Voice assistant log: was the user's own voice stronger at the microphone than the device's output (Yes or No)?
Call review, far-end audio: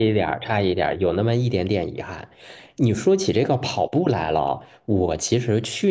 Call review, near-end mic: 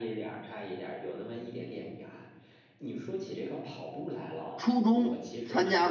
Yes